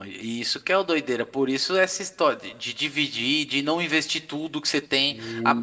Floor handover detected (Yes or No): No